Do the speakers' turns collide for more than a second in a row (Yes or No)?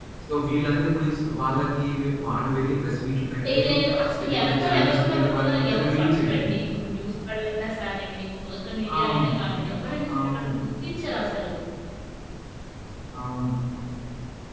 Yes